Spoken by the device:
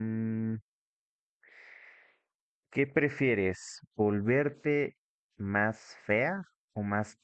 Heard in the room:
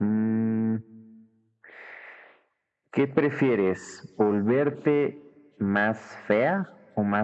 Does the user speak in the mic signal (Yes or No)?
No